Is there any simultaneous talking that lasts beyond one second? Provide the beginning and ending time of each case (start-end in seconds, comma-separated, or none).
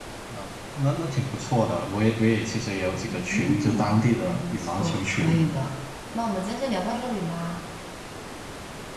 3.1-5.3